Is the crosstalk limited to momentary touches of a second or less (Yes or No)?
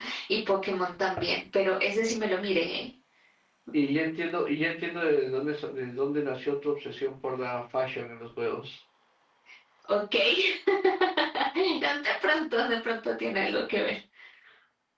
Yes